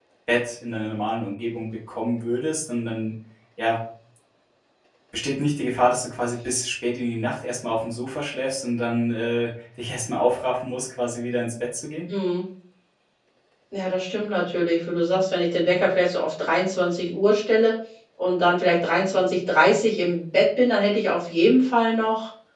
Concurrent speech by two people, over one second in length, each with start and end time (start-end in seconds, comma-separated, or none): none